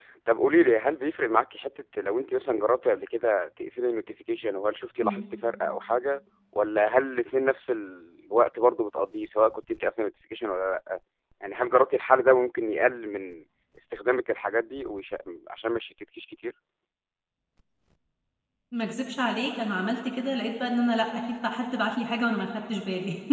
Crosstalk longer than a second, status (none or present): none